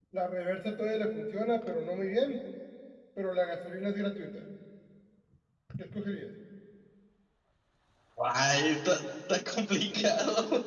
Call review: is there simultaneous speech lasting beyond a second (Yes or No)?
No